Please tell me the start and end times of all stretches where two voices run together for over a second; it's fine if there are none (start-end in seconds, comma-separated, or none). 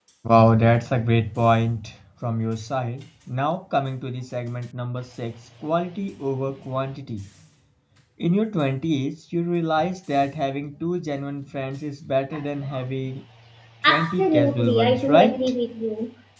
13.9-15.5